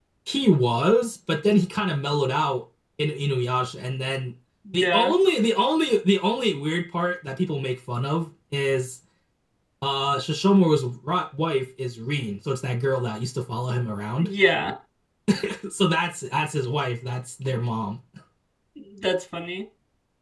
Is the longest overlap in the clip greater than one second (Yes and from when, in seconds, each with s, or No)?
No